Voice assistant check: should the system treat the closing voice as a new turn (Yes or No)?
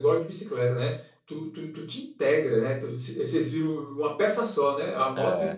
No